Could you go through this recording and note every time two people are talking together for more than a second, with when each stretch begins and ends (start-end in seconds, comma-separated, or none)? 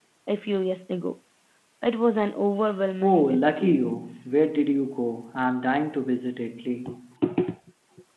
3.0-4.2